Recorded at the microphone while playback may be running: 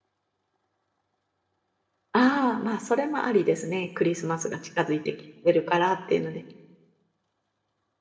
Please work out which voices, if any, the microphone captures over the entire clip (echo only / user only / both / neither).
user only